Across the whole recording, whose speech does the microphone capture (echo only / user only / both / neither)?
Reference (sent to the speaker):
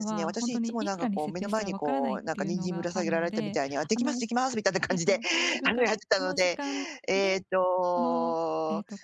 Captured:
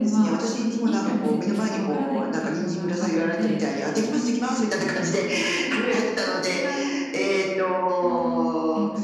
echo only